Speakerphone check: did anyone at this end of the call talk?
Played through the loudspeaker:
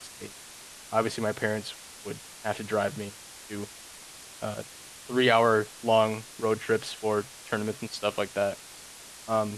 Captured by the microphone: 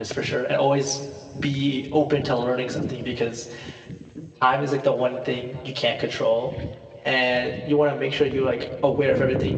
Yes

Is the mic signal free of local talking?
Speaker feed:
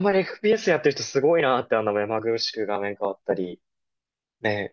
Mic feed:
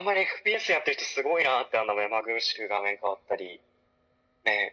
Yes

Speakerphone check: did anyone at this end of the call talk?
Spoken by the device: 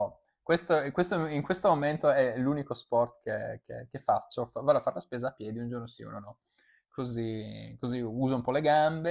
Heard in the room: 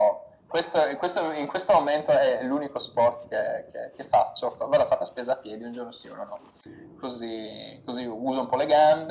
No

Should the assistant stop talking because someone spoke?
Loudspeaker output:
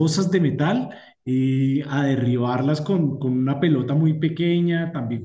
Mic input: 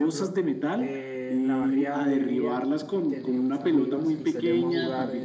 Yes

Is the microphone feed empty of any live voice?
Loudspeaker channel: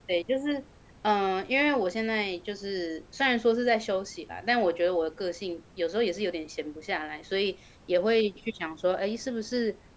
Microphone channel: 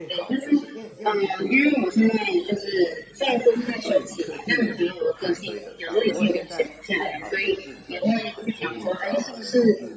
No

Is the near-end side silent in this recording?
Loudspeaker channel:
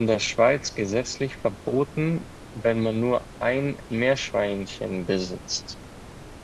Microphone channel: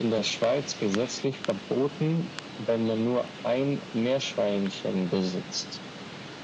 Yes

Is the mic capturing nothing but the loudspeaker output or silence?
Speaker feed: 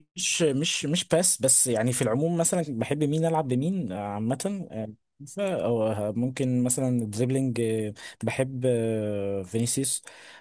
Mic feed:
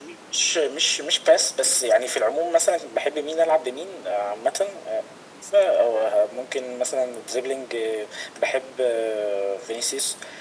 Yes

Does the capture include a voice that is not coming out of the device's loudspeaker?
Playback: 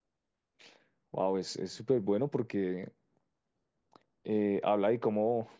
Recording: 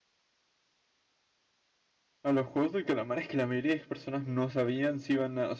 Yes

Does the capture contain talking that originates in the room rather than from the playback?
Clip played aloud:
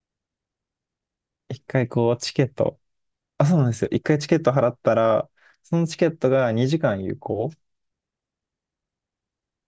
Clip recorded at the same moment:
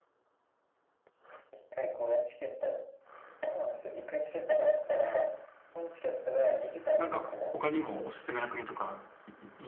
Yes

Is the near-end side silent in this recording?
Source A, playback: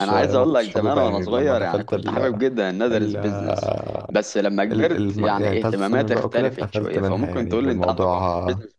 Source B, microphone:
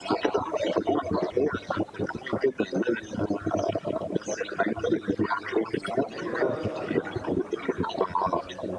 No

